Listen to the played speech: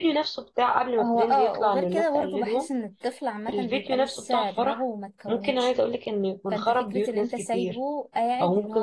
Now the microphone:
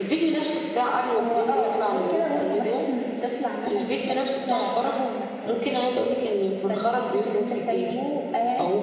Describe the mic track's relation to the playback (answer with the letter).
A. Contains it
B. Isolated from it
A